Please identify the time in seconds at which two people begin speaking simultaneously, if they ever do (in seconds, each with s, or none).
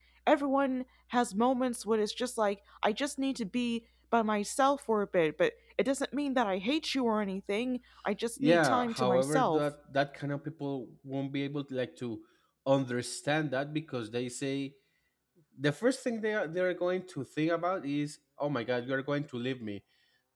8.4 s